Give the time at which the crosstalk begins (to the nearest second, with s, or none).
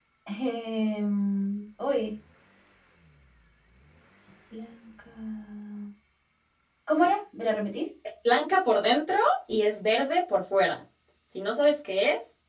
none